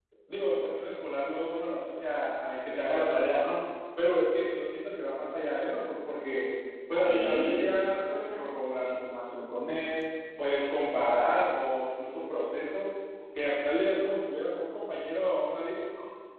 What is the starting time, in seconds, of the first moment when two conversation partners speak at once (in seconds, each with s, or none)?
7.1 s